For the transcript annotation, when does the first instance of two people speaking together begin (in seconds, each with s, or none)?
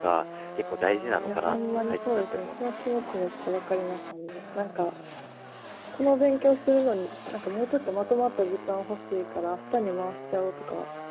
1.2 s